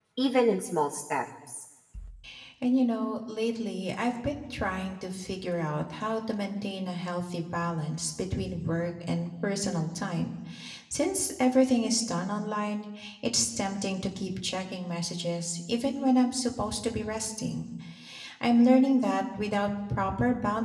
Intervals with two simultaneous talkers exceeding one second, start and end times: none

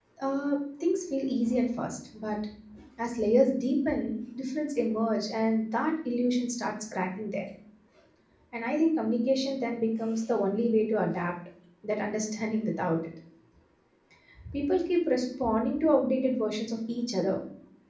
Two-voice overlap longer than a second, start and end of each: none

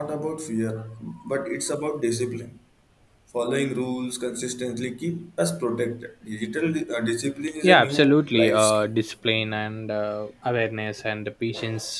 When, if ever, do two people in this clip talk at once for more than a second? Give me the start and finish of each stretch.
7.6-8.9

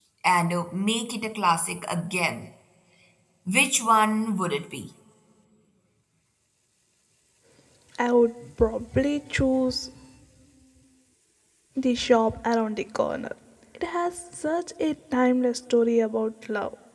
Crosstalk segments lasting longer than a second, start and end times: none

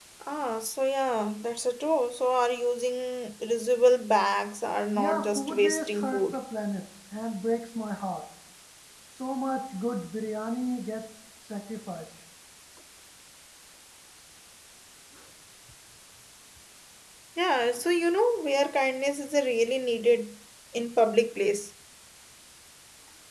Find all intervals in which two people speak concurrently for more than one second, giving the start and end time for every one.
5.0-6.4

